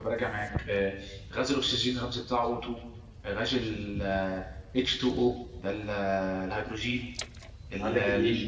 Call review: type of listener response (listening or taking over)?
taking over